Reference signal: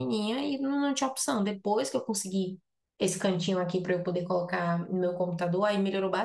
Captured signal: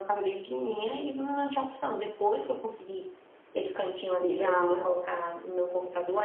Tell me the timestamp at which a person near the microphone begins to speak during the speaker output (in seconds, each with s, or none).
4.3 s